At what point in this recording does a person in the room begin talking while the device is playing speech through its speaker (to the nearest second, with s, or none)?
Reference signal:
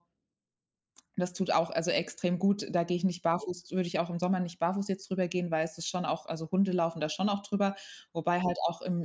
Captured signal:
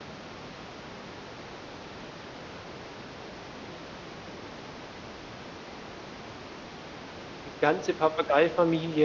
7 s